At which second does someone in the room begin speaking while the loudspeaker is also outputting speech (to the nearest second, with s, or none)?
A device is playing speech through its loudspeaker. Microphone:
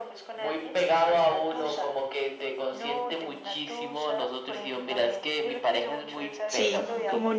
6 s